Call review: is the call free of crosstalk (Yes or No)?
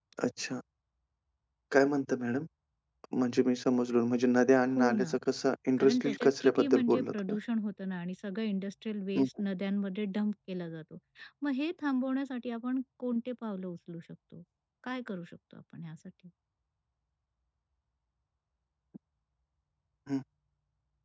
No